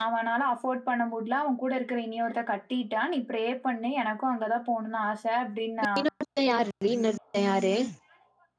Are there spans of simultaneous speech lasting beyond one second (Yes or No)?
No